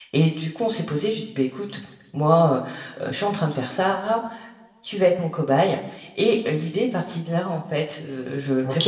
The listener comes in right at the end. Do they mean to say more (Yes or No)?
No